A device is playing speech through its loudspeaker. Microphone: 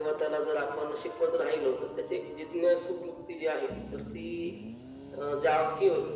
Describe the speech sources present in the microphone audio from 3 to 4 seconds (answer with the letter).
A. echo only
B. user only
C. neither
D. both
A